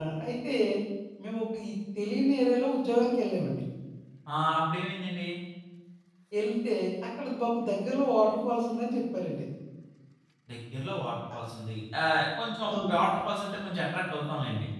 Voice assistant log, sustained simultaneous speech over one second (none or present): none